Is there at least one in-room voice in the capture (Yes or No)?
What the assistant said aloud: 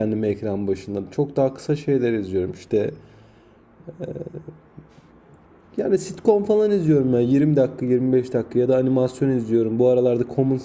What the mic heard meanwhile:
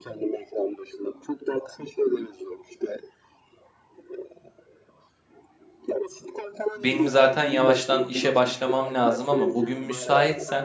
Yes